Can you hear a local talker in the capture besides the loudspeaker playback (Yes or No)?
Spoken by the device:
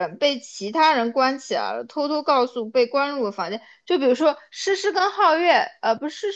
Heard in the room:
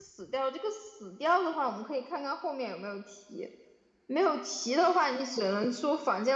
Yes